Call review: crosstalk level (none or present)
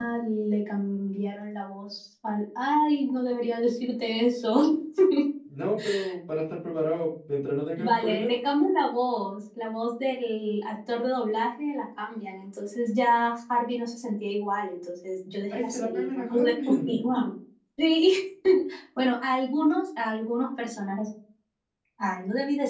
present